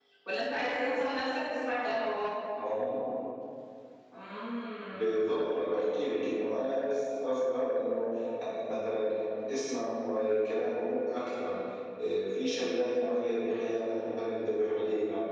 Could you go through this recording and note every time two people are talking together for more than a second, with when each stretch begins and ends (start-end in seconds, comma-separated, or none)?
none